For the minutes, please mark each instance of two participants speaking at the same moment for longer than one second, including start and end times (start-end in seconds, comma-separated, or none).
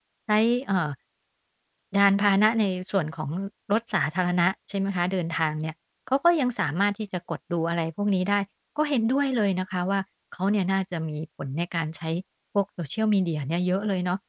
none